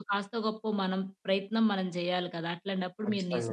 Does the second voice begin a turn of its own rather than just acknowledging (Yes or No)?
No